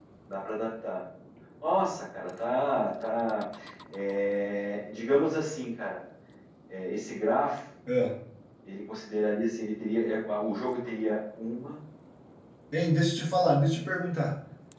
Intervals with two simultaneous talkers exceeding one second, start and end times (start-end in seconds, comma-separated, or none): none